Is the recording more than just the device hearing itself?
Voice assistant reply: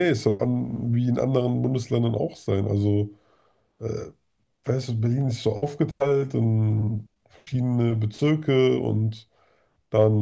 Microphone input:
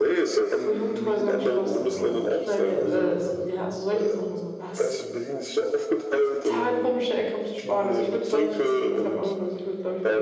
Yes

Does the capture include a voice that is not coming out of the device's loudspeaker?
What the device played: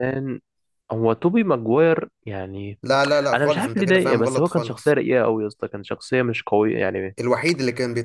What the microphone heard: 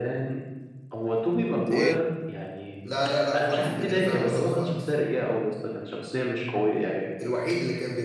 Yes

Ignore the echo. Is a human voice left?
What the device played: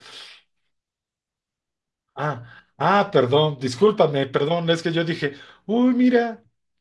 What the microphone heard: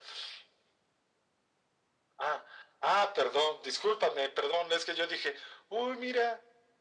No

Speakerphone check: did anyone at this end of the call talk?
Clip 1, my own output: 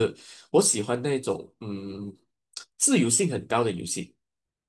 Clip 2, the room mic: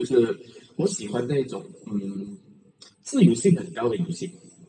No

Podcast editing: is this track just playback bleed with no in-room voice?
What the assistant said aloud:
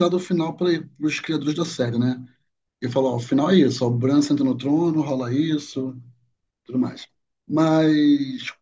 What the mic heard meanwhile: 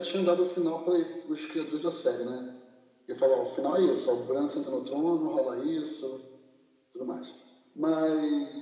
Yes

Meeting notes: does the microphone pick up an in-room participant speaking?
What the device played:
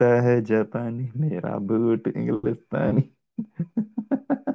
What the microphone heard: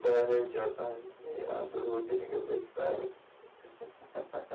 No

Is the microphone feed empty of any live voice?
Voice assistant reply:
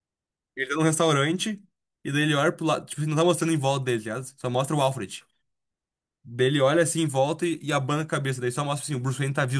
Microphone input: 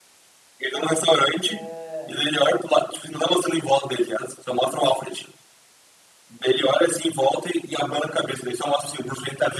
No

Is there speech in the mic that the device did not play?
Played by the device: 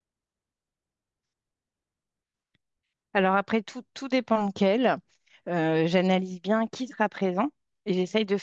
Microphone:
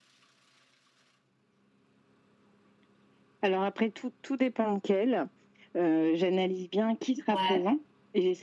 Yes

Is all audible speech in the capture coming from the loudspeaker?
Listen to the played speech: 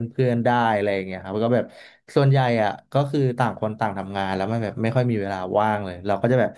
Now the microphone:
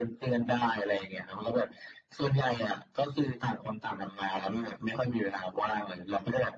Yes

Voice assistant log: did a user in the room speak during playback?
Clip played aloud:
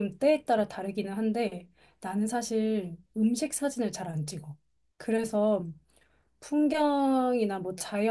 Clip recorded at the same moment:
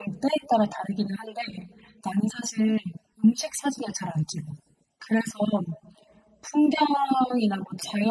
No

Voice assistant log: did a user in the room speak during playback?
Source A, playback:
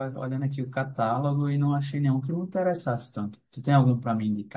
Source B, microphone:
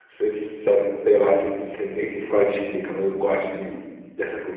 Yes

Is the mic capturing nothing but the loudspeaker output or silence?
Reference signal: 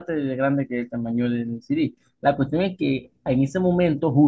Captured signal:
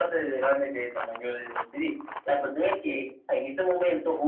Yes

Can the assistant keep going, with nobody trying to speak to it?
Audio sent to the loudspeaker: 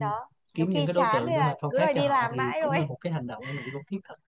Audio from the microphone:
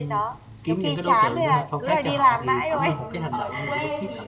No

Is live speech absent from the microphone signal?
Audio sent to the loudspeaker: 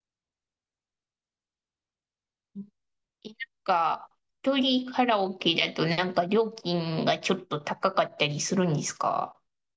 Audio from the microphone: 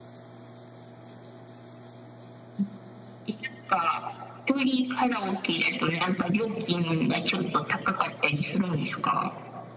Yes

